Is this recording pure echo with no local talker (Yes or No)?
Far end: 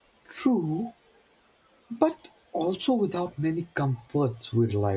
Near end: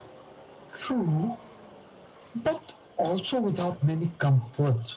Yes